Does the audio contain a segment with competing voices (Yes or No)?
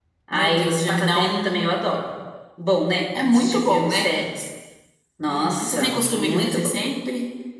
Yes